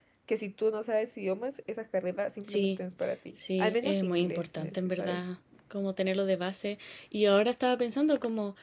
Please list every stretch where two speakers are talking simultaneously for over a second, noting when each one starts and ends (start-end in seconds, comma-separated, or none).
3.6-5.2